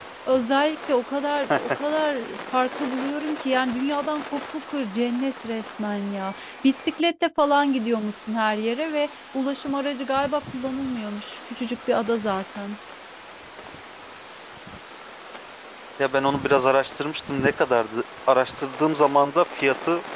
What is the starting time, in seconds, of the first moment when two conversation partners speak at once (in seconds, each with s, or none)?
none